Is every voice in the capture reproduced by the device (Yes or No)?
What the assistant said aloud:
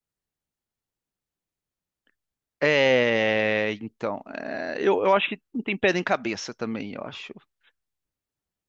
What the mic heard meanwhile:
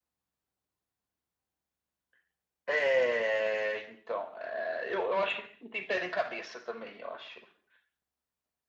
Yes